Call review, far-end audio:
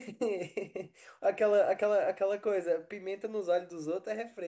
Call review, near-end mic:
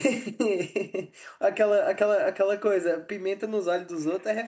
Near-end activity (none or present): none